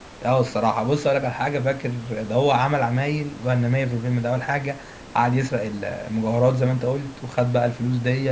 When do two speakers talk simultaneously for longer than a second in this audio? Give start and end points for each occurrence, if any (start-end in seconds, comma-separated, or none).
none